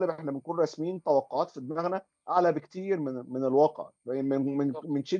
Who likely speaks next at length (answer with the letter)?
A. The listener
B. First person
B